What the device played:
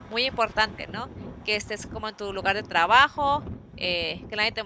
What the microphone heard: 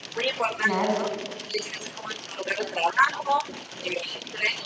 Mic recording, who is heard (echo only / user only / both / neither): both